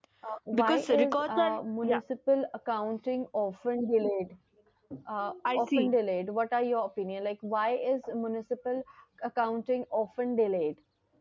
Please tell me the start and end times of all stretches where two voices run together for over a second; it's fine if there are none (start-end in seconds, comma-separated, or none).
0.5-2.0